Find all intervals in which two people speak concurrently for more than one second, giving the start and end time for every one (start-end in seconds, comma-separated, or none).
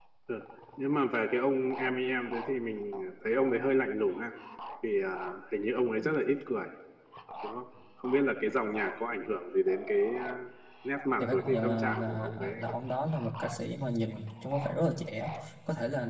11.2-12.7